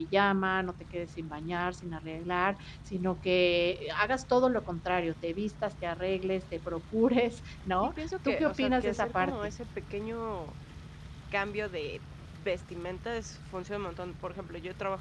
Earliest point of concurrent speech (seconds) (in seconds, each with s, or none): 7.8 s